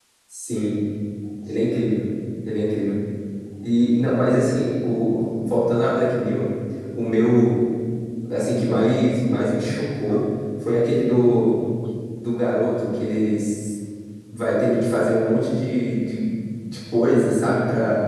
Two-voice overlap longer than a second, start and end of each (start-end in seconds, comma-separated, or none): none